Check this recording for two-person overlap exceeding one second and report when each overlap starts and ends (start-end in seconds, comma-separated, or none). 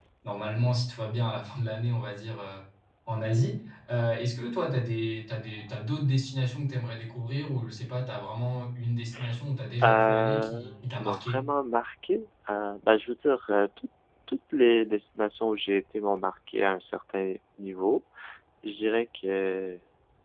9.8-11.4